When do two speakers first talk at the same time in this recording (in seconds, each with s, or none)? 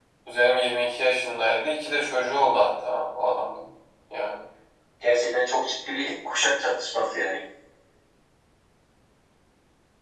none